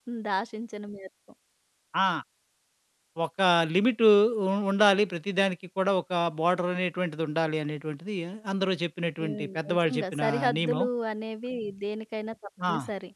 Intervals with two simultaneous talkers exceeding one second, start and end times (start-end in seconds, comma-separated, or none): 9.2-10.8